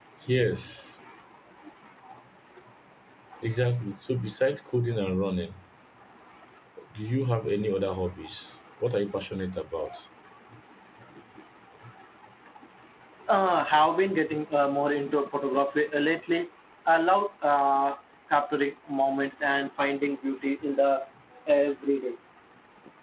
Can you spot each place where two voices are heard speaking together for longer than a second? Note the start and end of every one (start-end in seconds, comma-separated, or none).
none